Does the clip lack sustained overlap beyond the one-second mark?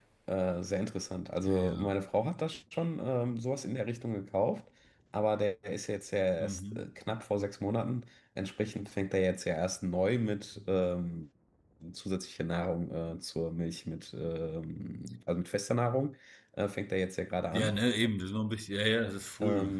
Yes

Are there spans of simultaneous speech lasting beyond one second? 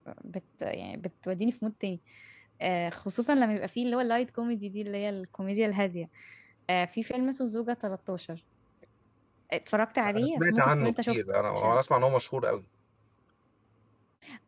Yes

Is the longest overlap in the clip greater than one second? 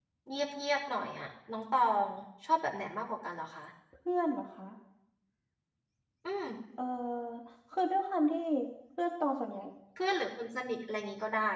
No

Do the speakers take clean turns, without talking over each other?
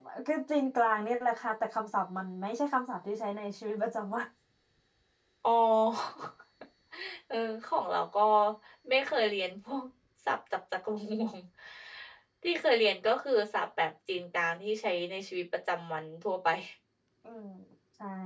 Yes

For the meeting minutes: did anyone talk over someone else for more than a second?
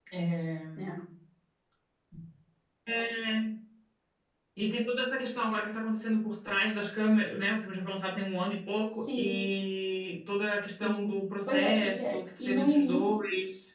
Yes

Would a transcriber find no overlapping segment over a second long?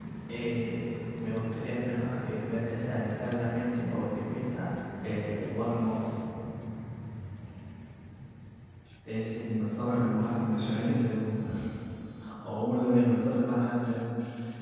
No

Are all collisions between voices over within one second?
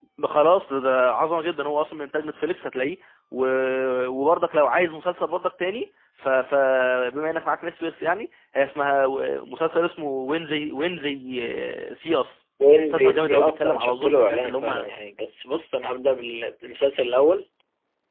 No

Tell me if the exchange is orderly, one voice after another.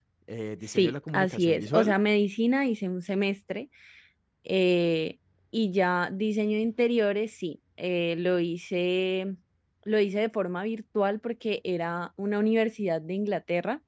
No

